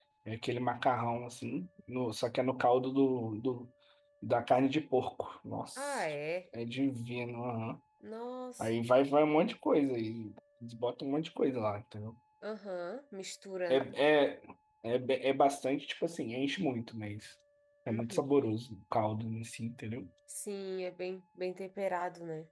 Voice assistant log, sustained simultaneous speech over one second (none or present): none